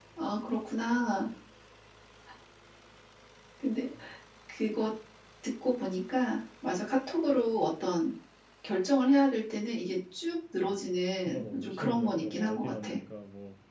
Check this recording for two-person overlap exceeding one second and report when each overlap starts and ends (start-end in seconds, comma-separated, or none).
11.2-12.9